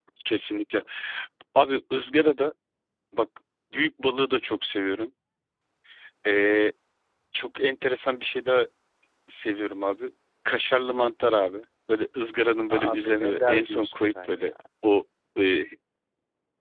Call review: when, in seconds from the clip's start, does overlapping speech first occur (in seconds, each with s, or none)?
12.7 s